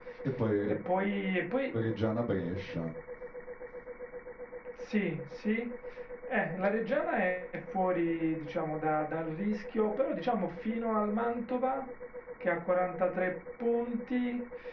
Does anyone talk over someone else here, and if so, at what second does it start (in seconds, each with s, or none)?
none